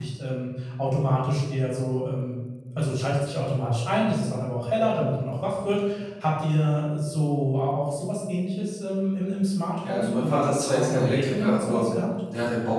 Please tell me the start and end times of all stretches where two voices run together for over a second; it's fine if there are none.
9.8-11.9

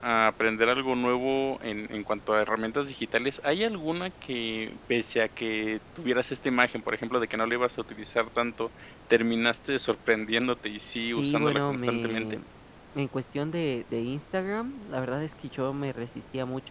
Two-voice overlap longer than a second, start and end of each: 11.0-12.4

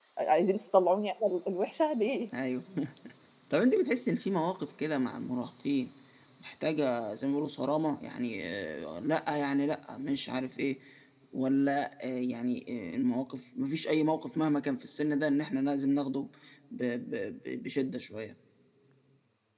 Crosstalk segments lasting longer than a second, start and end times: none

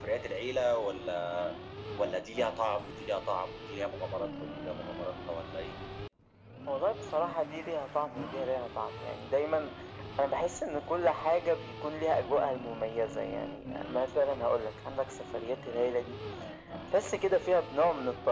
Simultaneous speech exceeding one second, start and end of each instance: none

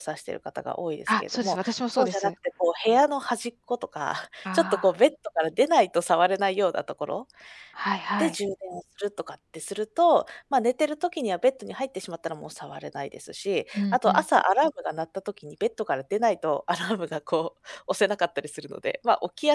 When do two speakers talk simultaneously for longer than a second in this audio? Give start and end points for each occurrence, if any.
1.1-2.3

